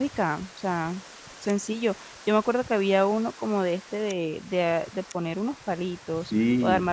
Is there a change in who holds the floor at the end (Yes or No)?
Yes